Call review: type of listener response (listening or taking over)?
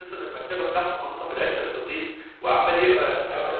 listening